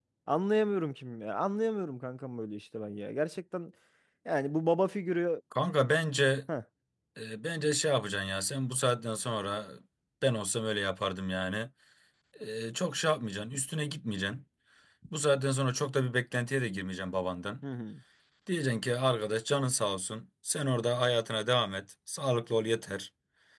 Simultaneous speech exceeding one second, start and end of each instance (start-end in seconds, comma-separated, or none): none